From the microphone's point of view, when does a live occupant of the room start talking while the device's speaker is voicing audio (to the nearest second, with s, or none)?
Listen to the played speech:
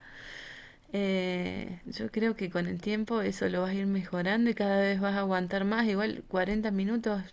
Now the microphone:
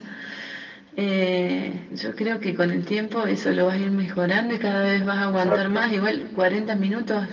5 s